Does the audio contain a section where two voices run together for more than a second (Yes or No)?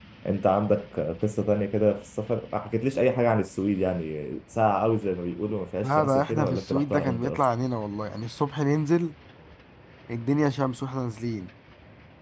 Yes